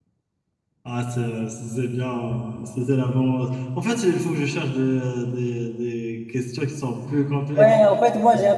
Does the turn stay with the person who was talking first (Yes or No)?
No